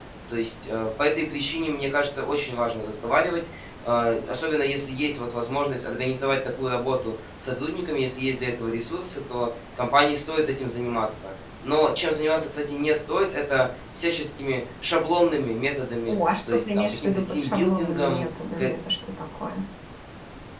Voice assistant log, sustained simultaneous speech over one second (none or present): present